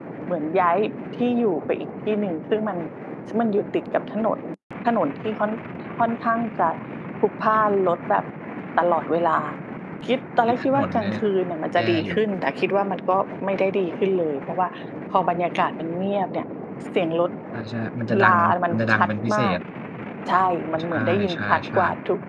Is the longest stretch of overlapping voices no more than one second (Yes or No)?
No